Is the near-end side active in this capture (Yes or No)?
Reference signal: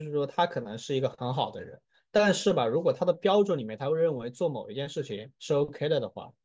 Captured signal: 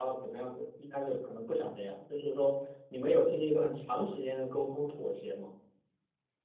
Yes